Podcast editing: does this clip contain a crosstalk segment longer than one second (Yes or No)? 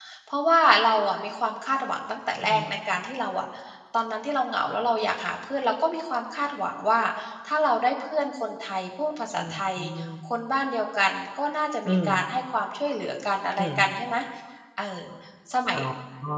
No